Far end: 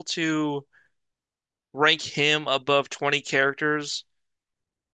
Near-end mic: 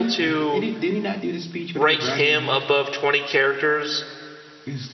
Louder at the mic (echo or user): echo